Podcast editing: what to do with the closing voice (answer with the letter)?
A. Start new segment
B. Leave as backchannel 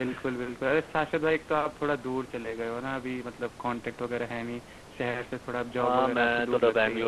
A